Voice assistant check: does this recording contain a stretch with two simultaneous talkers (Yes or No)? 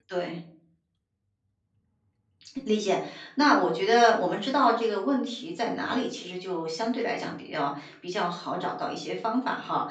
No